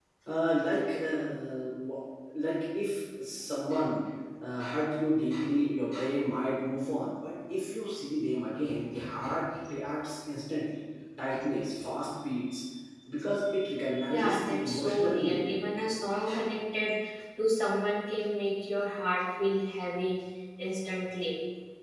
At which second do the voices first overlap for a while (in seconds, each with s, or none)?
14.1 s